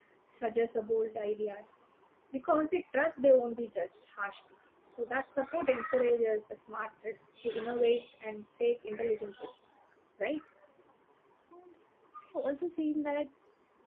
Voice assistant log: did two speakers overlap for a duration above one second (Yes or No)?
No